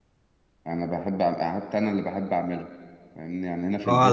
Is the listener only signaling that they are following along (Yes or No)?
No